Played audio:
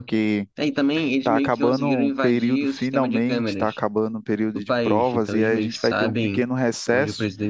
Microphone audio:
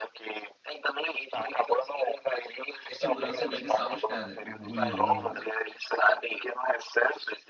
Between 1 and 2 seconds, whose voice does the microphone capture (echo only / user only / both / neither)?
echo only